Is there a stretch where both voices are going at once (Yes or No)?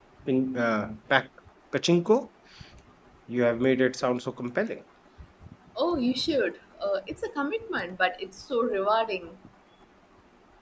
No